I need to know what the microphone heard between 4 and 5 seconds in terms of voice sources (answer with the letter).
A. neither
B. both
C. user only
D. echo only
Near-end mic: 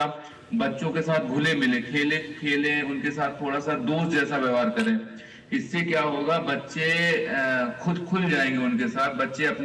D